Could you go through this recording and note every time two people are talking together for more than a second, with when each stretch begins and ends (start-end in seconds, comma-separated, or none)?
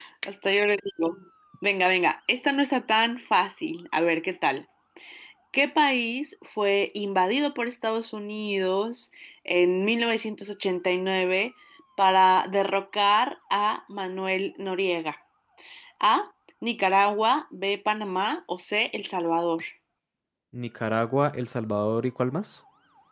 none